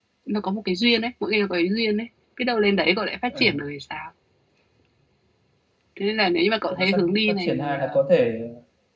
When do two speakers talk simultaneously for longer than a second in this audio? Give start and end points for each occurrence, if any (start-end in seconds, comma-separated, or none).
6.7-7.9